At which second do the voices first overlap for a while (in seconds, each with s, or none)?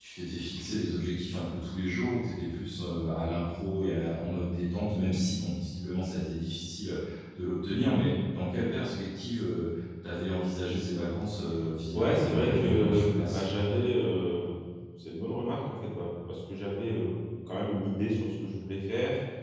11.9 s